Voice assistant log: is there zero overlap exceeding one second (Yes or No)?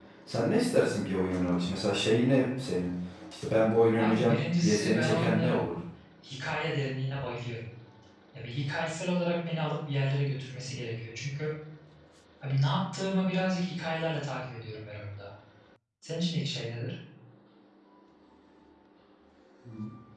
No